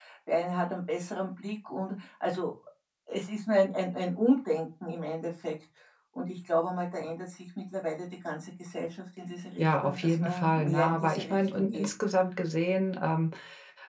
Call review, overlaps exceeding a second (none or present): present